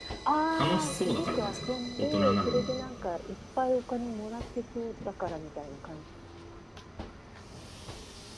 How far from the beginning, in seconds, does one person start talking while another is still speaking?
0.6 s

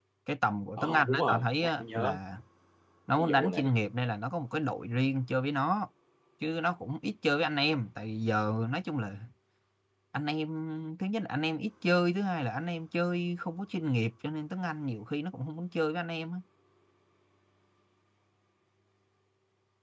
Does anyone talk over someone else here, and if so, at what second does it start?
0.8 s

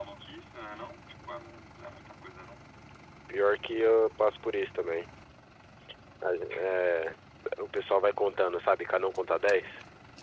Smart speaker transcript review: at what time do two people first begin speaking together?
none

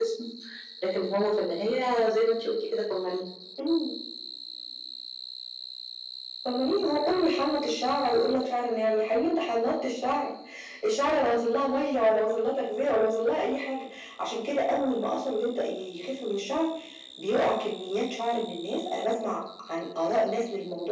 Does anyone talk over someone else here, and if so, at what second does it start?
none

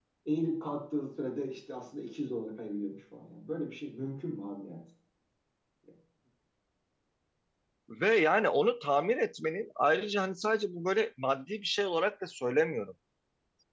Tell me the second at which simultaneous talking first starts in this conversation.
none

